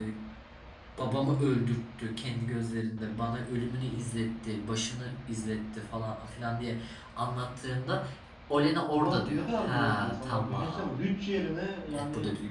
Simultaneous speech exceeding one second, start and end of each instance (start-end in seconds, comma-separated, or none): 8.9-11.1